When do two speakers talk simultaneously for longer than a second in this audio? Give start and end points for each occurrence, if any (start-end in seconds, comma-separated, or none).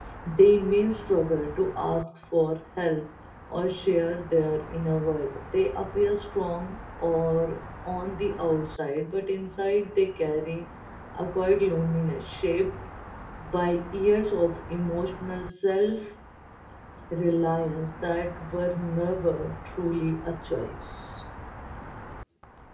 none